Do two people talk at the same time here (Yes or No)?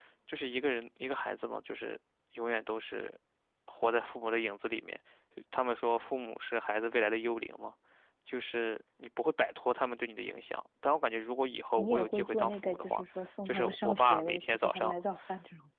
Yes